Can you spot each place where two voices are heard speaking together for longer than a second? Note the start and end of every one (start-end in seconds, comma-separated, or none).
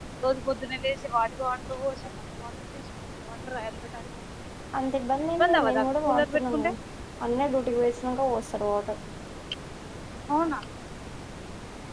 5.2-6.7